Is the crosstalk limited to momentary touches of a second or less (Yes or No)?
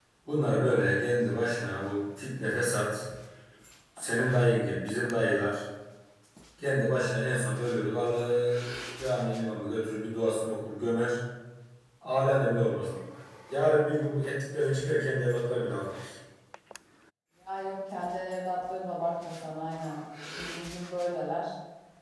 Yes